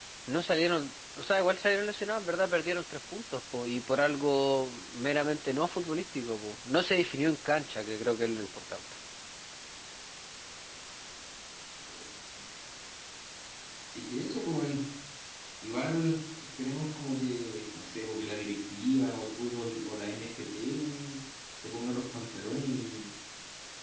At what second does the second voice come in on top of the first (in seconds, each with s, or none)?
none